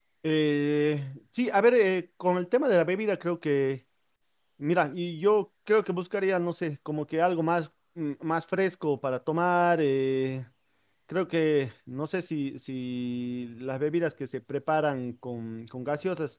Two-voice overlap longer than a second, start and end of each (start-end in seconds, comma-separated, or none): none